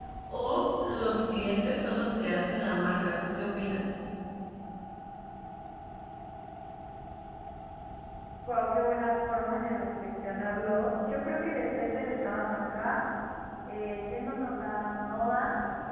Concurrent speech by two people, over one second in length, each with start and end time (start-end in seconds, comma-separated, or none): none